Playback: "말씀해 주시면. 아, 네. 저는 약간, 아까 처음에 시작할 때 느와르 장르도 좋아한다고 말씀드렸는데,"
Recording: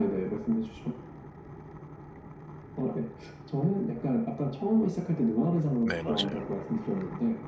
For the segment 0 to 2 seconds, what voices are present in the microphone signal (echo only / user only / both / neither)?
echo only